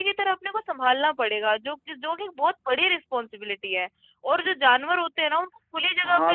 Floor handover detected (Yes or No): No